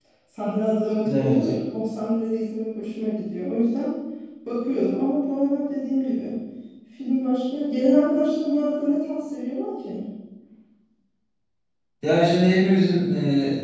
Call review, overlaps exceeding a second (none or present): none